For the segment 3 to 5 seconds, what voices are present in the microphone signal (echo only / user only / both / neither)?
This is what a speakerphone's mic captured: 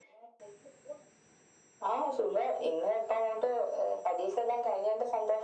echo only